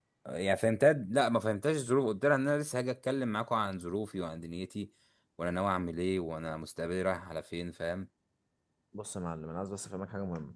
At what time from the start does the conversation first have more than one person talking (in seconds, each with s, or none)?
none